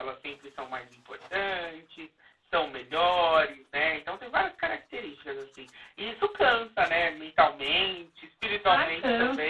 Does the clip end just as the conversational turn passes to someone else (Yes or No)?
Yes